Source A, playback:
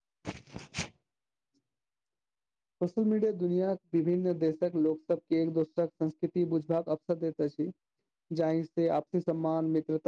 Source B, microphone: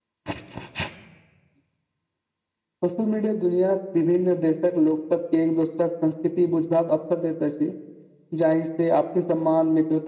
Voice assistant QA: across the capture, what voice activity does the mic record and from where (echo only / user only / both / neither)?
echo only